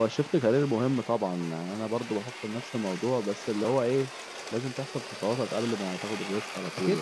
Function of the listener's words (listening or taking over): taking over